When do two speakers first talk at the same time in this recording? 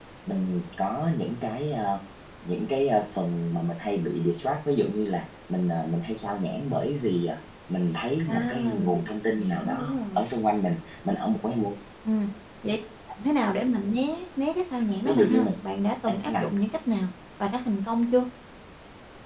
8.3 s

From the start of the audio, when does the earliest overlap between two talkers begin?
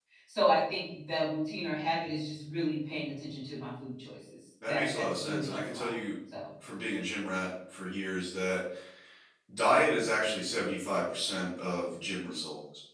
4.6 s

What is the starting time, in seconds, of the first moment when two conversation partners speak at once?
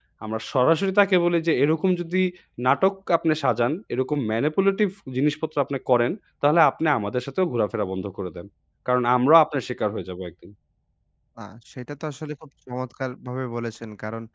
none

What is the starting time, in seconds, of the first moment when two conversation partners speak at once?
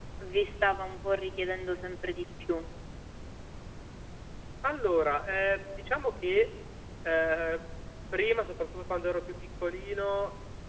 none

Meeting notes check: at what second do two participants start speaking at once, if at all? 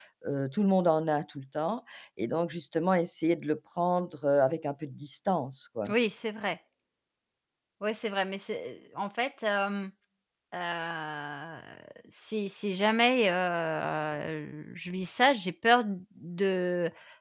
none

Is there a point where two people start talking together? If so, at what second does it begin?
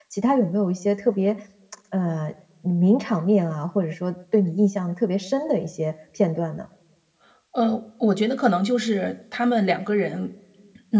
none

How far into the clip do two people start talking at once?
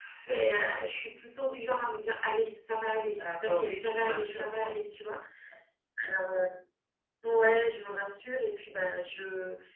3.1 s

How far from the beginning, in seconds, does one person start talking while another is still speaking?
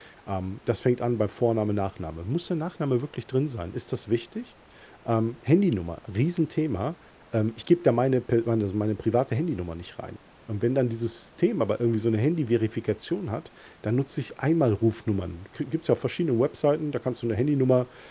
none

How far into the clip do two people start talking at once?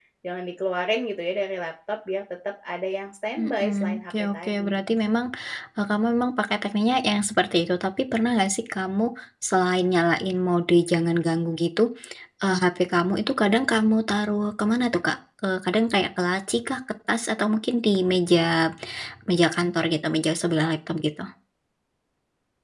3.4 s

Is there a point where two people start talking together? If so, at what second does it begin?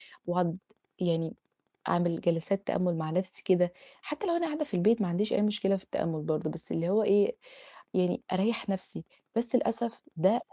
none

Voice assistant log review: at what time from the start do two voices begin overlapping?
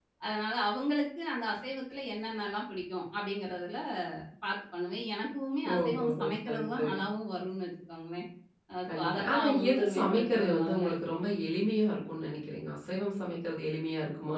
5.7 s

